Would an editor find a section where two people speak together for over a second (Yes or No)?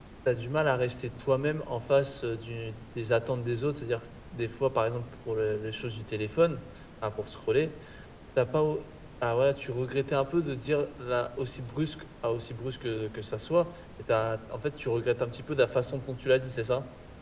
No